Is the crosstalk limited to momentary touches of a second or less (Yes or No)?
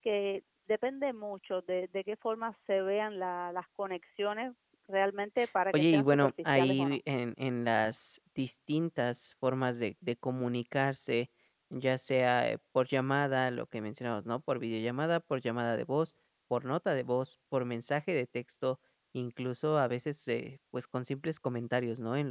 No